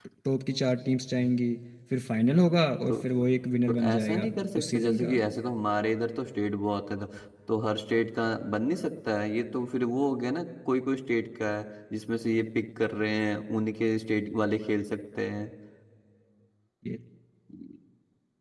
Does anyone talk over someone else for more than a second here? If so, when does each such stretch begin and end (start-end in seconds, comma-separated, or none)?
3.7-5.1